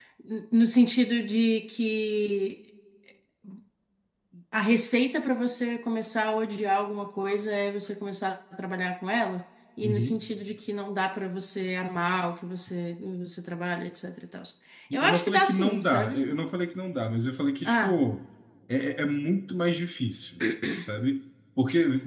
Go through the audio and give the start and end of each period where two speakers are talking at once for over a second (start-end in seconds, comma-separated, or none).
14.9-16.2